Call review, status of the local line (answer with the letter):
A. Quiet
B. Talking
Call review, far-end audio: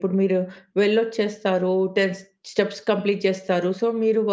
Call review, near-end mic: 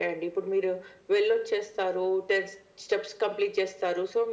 A